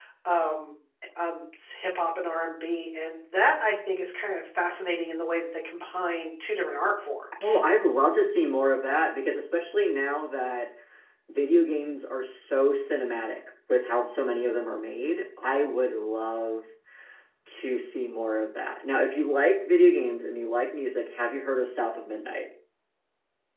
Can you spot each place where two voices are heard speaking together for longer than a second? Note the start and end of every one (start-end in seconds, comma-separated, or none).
none